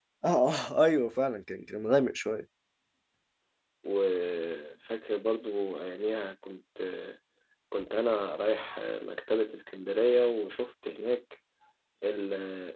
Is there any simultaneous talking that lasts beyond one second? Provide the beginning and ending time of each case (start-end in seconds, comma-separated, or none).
none